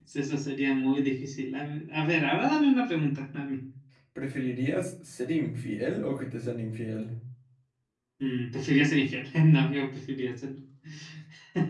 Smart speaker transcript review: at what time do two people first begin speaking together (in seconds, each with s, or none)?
none